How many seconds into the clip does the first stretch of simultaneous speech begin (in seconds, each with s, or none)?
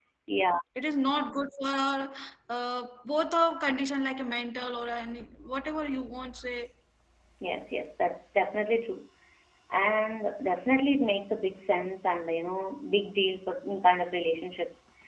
none